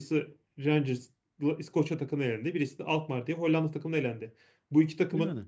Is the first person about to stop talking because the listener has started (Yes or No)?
No